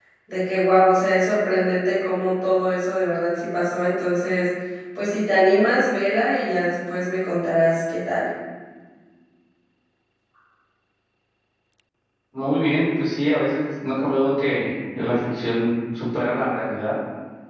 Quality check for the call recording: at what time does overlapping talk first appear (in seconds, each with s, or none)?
none